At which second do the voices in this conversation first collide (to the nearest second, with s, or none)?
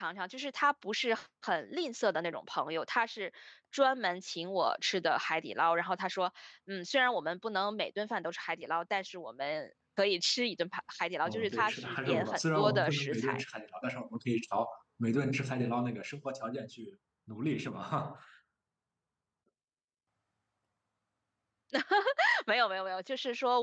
11 s